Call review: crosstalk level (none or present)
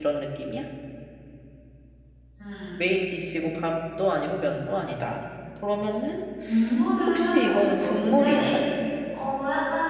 present